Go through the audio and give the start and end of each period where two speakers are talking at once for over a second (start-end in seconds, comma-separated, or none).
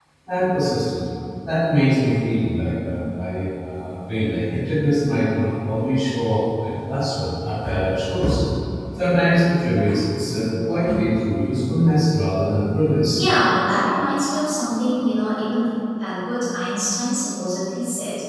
none